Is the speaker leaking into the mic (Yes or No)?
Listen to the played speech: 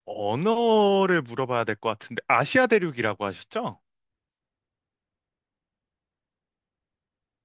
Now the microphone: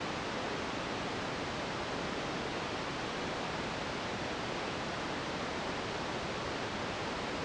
No